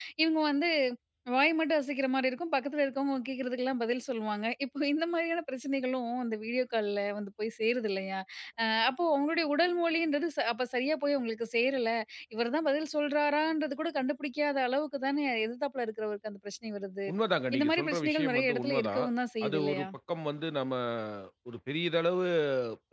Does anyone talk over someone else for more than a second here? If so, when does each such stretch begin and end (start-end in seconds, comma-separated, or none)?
17.6-19.0